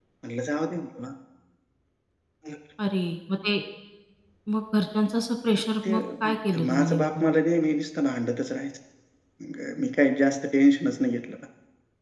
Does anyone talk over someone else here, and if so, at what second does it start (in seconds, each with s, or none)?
5.8 s